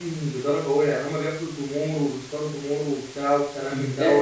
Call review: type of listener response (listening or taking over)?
taking over